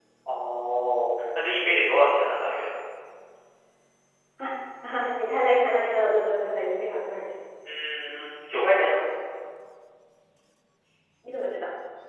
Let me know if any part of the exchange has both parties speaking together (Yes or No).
No